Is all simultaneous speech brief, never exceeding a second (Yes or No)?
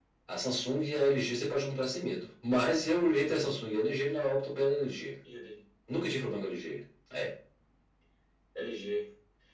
Yes